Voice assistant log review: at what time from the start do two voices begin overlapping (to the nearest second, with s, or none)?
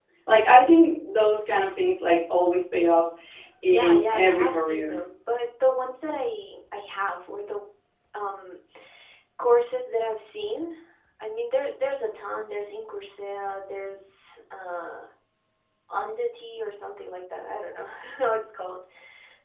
4 s